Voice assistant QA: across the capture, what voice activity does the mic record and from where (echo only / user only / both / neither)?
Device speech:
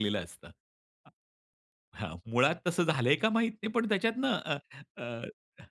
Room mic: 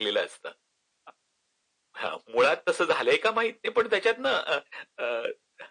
echo only